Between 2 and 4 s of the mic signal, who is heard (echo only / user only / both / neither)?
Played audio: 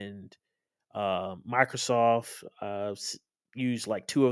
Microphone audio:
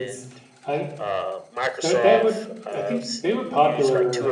both